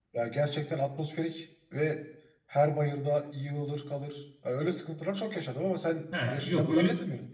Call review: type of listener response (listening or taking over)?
taking over